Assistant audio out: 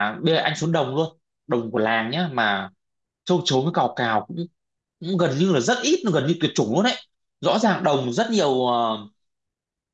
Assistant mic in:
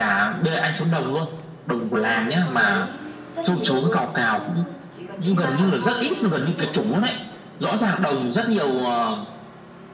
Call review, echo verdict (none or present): present